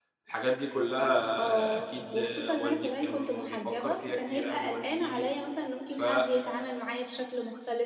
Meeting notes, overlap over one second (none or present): present